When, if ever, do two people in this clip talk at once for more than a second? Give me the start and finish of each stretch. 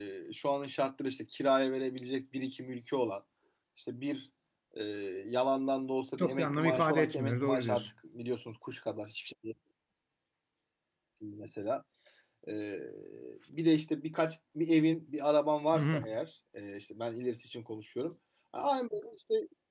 6.2-7.8

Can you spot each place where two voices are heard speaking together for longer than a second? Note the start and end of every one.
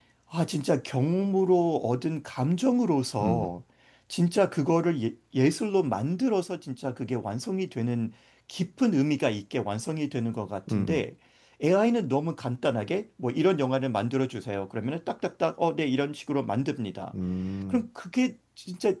none

